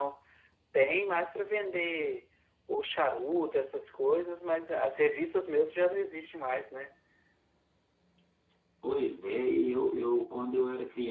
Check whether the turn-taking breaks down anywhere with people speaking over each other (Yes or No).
No